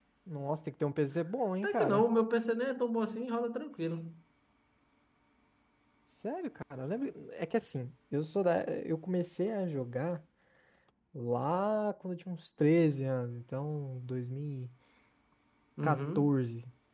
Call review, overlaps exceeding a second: none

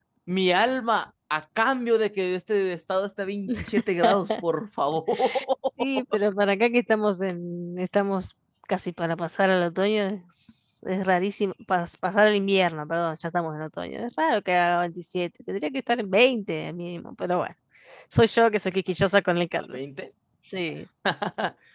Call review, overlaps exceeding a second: none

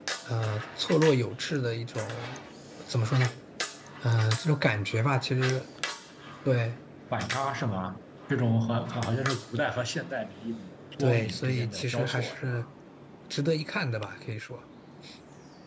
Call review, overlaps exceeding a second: present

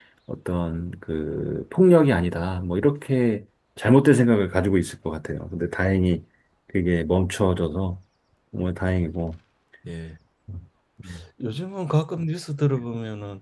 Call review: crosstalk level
none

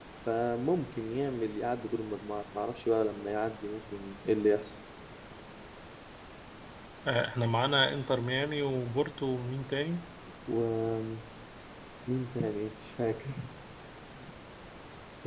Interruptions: none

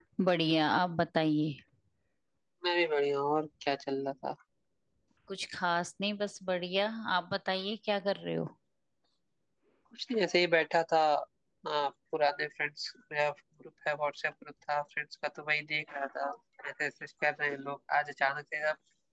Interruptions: none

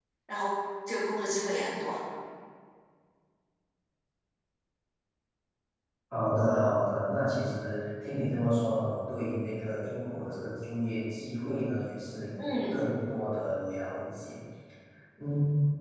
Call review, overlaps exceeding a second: none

